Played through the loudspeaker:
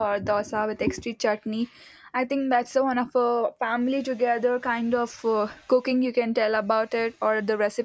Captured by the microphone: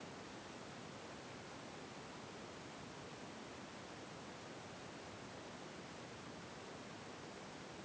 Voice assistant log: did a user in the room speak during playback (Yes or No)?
No